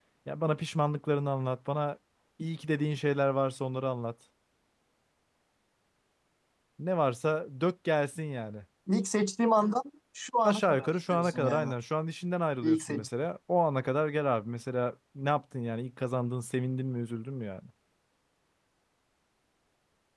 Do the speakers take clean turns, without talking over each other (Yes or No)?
No